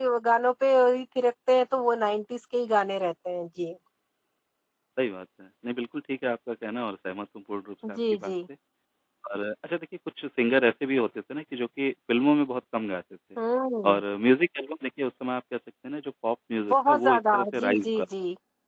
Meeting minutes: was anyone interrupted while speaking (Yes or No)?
Yes